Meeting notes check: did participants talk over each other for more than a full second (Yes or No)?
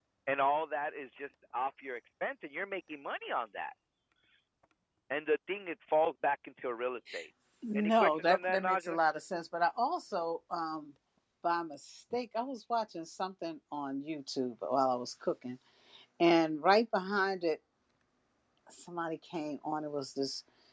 Yes